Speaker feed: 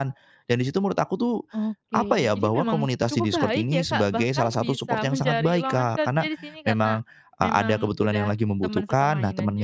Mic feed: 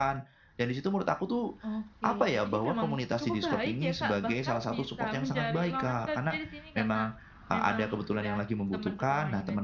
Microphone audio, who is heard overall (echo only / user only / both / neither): echo only